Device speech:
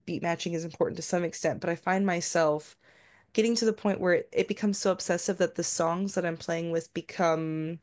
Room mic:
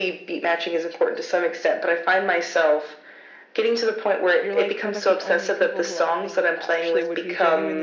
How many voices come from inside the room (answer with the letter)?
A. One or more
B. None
A